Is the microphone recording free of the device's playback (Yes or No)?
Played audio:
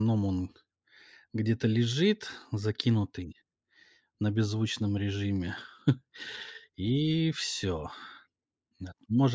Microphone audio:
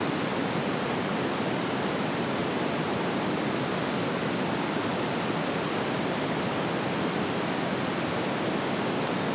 Yes